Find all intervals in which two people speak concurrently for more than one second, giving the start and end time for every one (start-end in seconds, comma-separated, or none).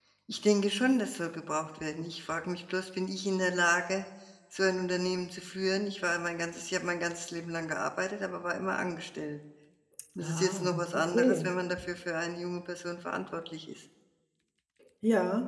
10.2-11.5